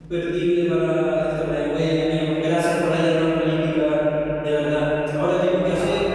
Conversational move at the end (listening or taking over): listening